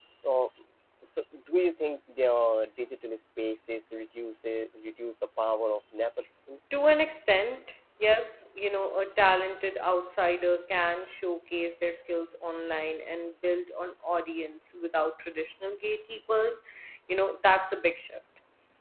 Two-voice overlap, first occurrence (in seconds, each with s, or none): none